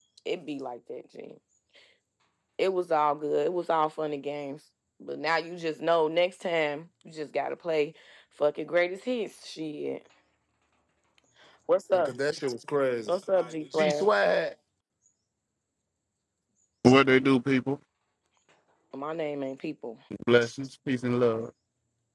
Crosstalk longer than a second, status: none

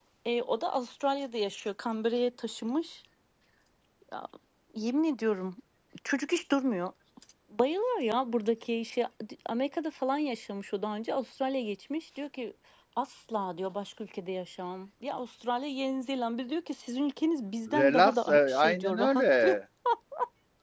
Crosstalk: present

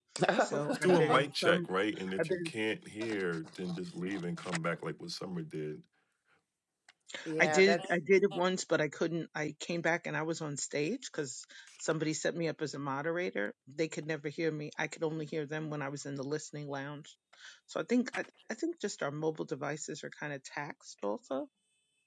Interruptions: present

